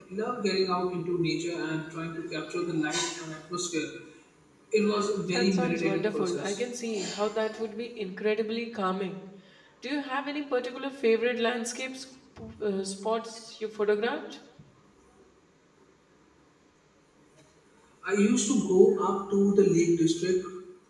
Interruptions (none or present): present